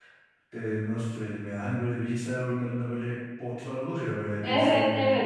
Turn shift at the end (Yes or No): Yes